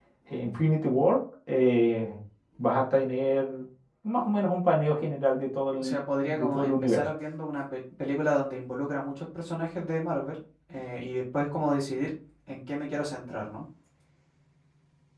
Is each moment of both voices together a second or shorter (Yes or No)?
No